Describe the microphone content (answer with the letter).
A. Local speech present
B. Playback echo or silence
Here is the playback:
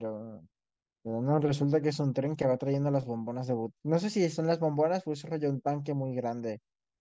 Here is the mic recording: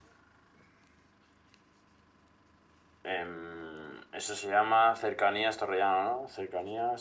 A